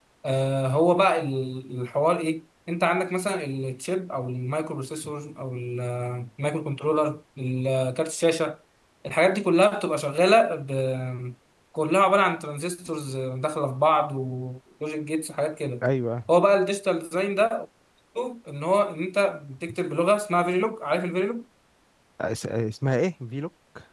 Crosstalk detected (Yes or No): No